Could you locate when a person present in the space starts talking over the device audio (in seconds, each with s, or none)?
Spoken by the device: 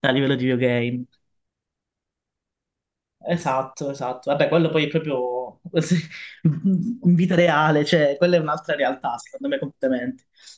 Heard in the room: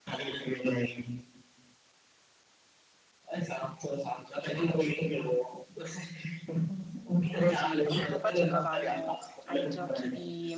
7.4 s